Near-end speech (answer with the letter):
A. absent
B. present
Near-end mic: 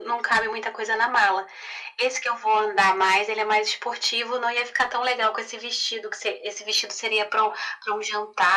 A